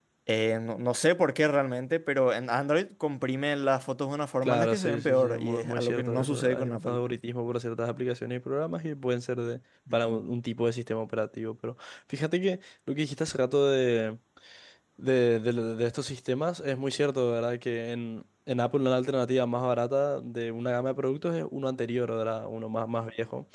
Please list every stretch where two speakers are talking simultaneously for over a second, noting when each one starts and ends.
4.4-7.0

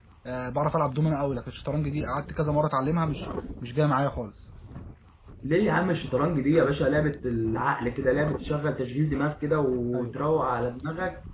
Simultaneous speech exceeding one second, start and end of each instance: none

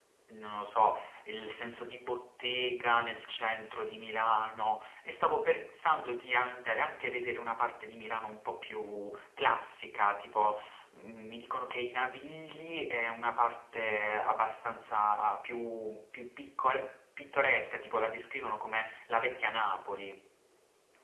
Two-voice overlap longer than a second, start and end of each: none

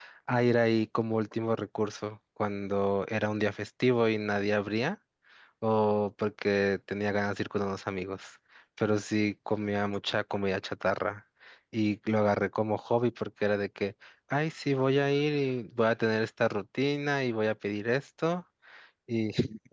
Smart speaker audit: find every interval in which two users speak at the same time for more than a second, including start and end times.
none

